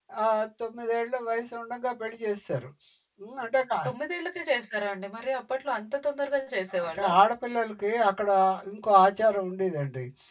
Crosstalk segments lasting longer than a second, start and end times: none

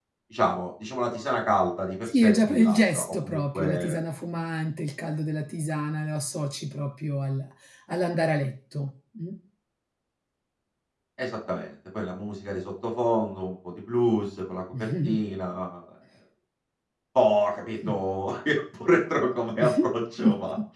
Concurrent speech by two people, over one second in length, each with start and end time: 2.0-4.0

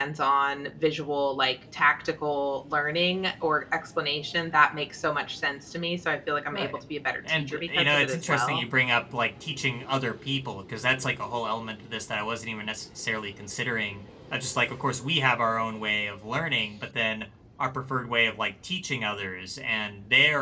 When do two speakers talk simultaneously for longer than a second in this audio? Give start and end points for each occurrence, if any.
7.3-8.6

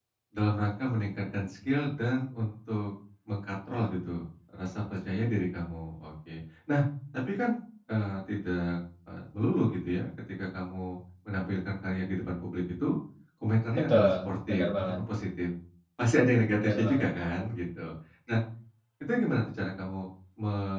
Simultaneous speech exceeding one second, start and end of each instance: 13.8-15.0

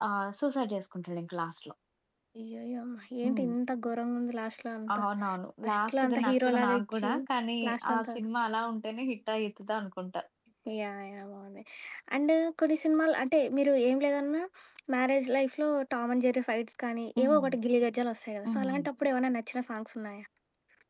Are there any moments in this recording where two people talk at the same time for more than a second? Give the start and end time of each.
5.6-7.1

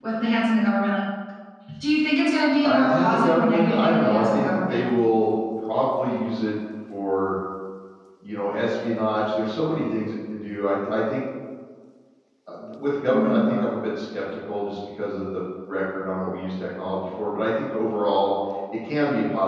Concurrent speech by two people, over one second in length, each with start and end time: 2.6-4.8

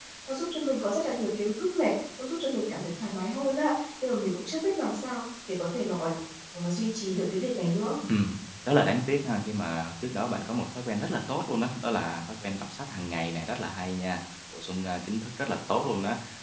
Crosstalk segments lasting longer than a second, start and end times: none

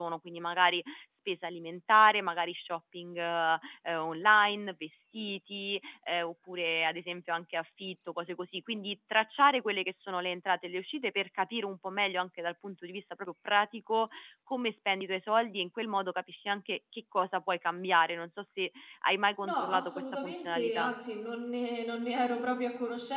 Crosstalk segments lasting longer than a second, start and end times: 19.4-20.9

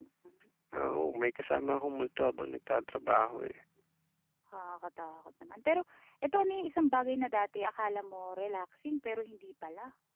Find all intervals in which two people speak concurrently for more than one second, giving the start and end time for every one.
none

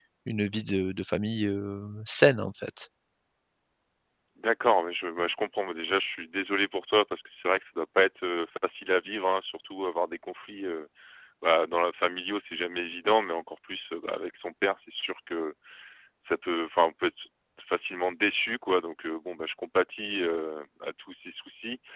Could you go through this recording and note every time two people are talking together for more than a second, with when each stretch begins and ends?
none

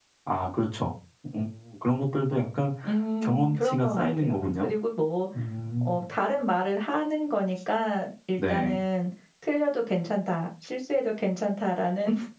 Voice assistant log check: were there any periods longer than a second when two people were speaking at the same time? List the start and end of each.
3.2-4.7

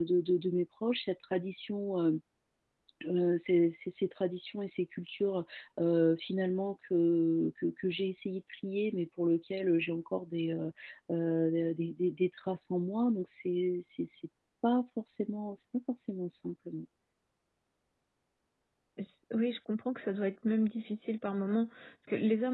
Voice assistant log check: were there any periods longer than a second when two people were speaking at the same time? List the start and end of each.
none

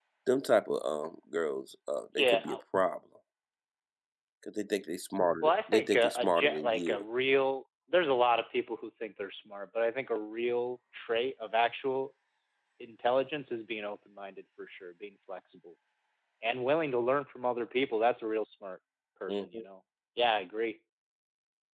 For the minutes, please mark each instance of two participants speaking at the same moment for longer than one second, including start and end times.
5.4-7.0

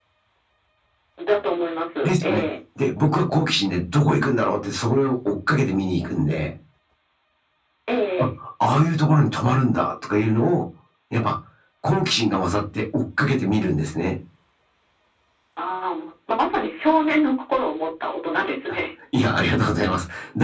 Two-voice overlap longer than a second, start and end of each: none

